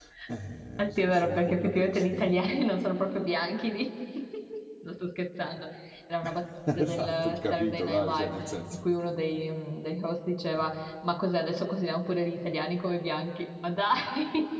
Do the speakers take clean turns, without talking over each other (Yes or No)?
No